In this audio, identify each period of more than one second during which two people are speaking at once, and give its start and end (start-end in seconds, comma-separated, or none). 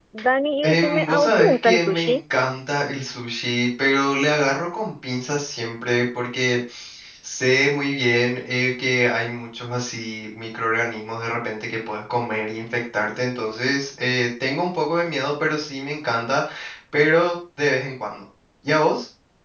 0.6-2.2